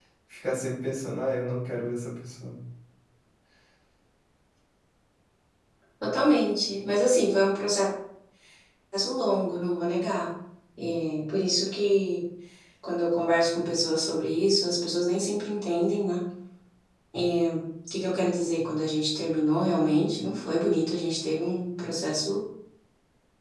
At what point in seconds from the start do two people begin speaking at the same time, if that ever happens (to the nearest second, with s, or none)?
none